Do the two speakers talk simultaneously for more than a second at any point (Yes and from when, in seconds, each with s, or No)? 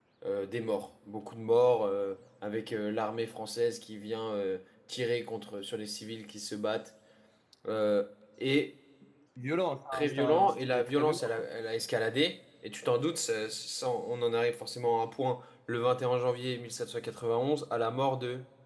Yes, from 9.9 s